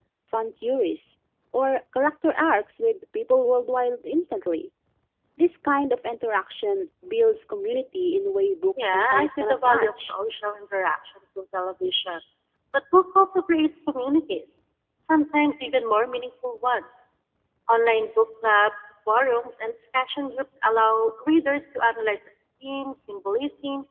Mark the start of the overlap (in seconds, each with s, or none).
8.8 s